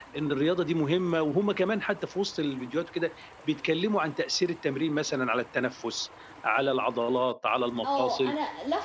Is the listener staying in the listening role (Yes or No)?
No